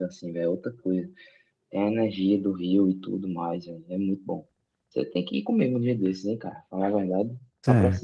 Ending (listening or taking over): taking over